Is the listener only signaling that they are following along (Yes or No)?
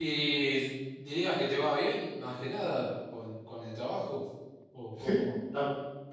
No